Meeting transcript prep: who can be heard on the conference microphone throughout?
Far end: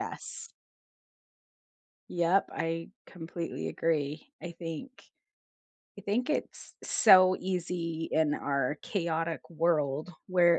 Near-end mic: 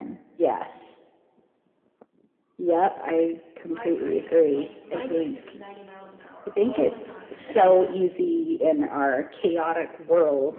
both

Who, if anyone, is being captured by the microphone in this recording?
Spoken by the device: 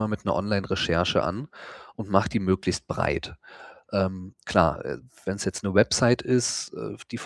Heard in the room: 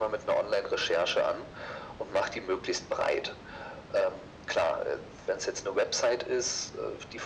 echo only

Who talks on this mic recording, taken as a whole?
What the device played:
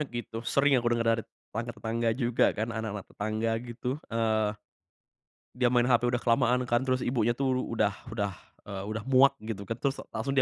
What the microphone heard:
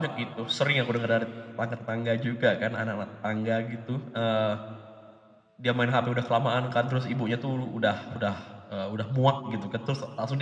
echo only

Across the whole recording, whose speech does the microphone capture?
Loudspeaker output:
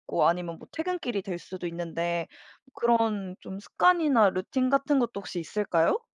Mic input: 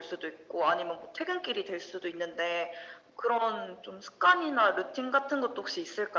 echo only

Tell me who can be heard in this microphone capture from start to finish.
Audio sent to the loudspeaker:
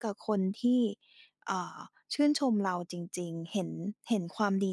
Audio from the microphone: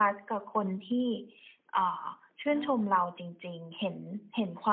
both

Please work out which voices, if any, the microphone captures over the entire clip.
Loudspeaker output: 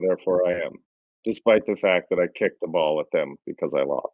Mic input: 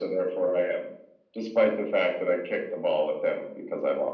echo only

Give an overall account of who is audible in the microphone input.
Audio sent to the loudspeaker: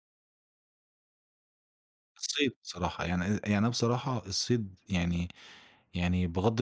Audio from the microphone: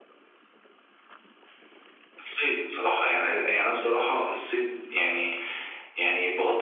echo only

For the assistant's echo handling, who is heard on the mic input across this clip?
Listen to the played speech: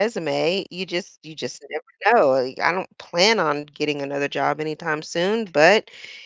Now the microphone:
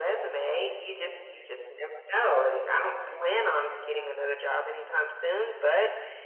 both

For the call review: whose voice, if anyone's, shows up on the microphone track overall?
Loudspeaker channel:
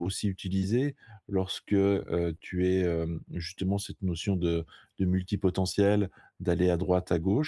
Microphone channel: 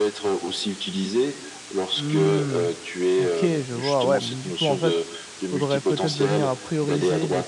both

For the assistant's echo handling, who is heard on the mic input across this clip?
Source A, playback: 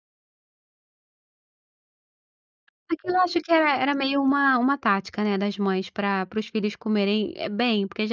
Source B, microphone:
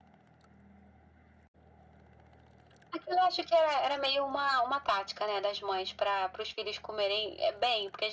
echo only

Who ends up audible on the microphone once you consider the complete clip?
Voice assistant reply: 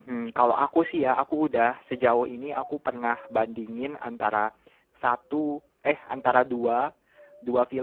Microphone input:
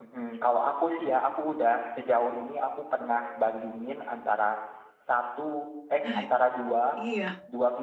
both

